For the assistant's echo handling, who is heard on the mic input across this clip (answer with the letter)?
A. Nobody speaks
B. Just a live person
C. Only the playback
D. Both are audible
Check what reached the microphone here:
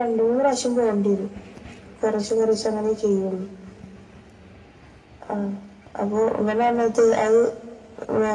C